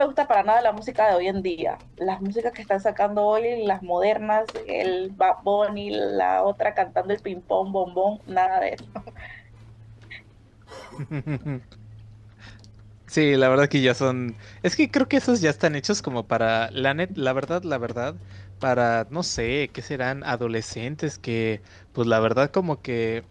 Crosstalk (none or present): none